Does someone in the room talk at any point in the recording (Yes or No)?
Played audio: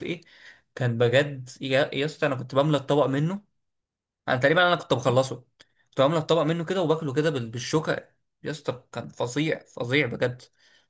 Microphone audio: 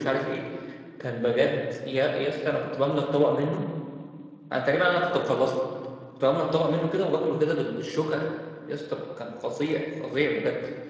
No